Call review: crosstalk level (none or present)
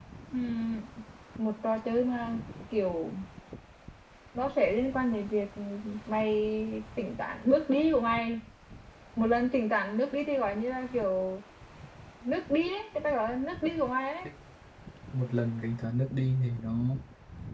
none